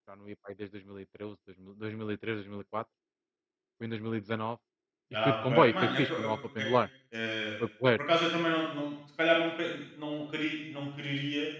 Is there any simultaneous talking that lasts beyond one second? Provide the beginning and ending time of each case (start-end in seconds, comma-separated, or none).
5.2-6.7